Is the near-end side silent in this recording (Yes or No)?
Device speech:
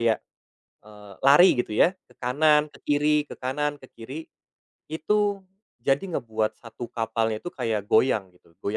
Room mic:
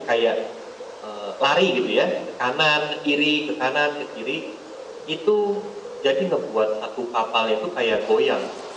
Yes